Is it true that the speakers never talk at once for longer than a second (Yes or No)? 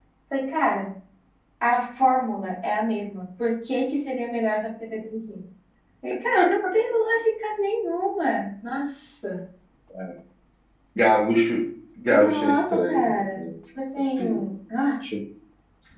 No